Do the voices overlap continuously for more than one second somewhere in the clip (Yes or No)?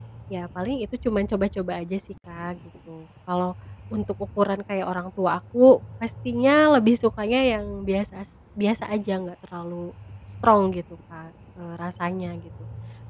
No